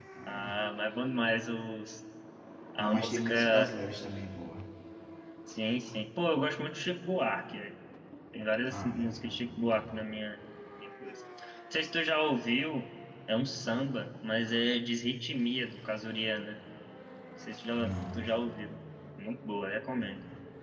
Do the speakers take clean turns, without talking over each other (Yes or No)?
No